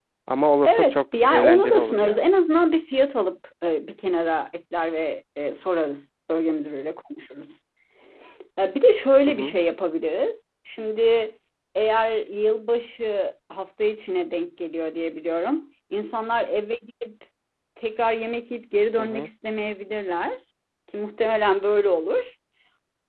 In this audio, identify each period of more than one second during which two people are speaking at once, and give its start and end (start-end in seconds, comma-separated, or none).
0.7-2.2